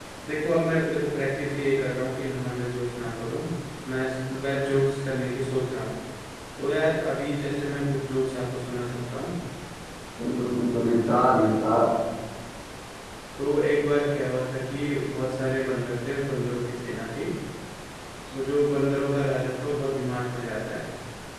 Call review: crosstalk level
none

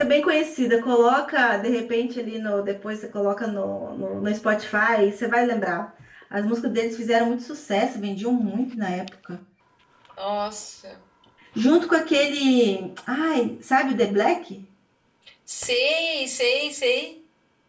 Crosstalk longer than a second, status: none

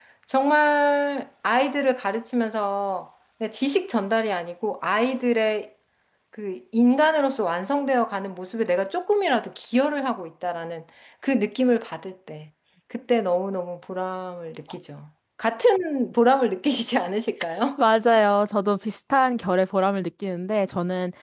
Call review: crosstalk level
none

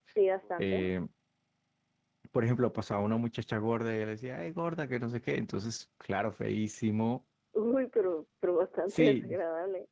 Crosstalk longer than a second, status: none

